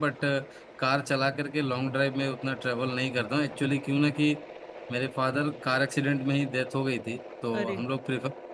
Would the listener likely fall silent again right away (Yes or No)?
Yes